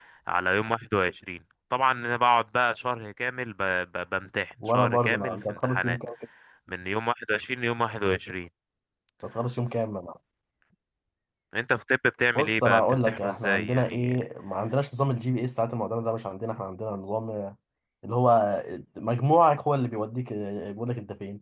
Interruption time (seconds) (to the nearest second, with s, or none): 5 s